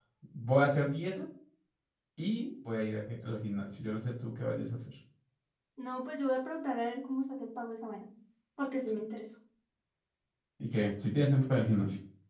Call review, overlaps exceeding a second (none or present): none